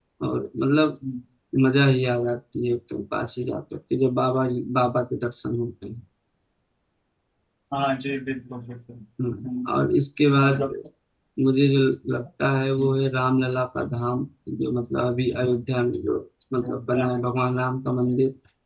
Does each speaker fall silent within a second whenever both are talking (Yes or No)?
Yes